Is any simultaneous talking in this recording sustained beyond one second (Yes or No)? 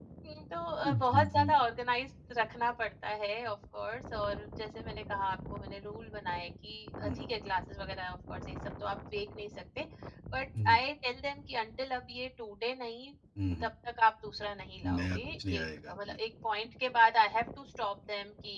Yes